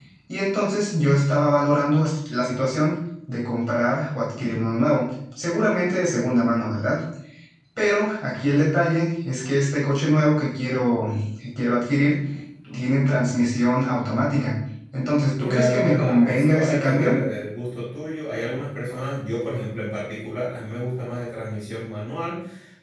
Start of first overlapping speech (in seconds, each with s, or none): 15.4 s